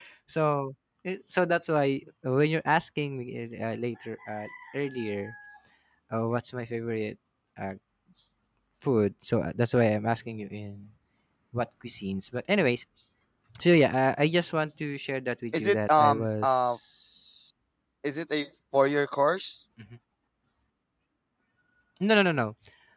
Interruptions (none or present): present